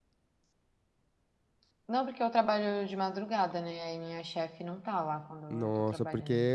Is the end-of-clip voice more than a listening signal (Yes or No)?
Yes